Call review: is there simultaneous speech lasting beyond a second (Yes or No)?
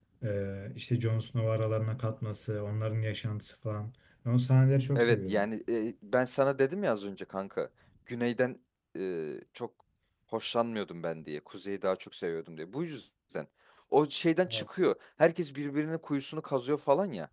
No